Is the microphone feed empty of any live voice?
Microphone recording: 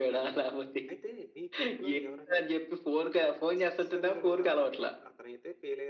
No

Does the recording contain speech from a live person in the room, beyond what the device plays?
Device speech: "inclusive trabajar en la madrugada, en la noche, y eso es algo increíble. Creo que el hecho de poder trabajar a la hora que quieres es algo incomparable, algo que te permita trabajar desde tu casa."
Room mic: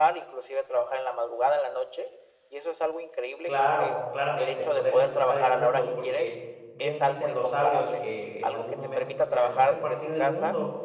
Yes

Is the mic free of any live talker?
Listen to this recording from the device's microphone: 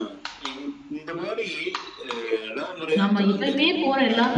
No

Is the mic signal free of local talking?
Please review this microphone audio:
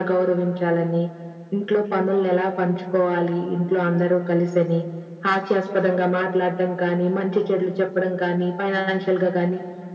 Yes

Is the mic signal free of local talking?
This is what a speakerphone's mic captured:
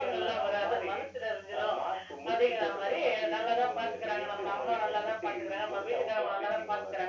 Yes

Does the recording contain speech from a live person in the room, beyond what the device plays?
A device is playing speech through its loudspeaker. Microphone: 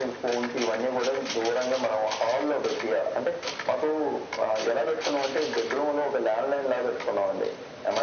No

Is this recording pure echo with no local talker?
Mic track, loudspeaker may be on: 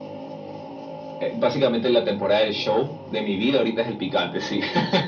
Yes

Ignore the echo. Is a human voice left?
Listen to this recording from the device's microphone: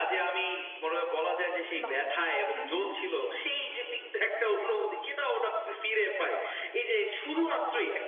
Yes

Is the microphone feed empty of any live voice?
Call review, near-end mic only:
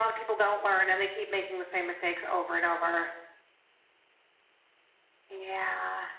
Yes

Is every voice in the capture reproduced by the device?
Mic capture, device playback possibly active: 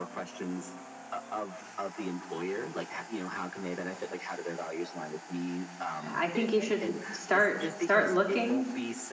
No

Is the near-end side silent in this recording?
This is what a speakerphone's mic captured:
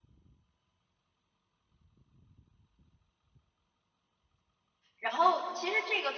No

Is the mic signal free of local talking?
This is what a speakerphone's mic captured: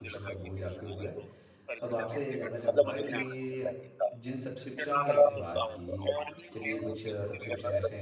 No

